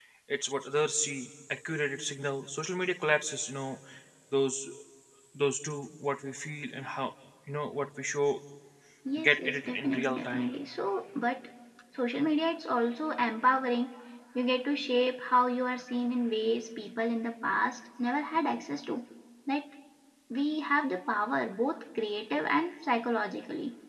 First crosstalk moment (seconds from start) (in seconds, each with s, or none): 9.2 s